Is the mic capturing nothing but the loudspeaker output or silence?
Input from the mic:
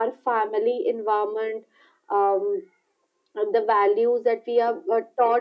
Yes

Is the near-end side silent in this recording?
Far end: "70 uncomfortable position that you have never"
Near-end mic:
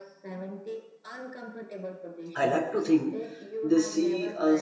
No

